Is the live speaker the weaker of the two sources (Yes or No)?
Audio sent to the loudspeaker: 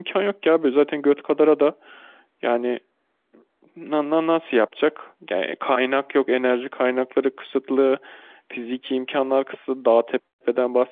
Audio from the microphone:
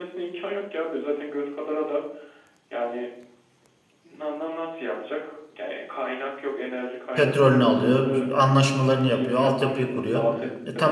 No